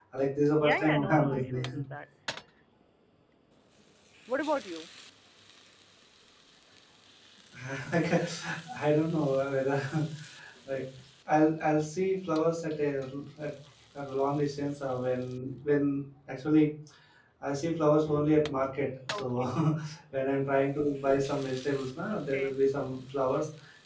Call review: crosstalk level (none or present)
present